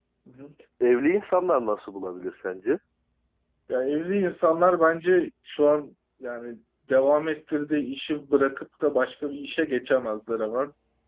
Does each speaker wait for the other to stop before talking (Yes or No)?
Yes